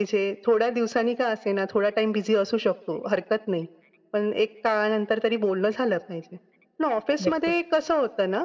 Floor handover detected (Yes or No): No